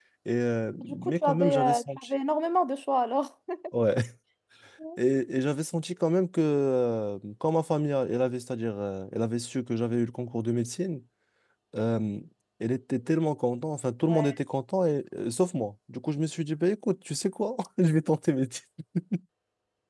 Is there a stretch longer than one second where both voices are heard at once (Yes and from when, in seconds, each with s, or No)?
Yes, from 0.8 s